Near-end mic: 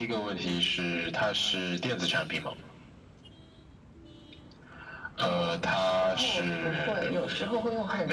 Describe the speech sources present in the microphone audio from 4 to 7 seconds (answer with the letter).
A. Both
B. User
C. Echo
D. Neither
C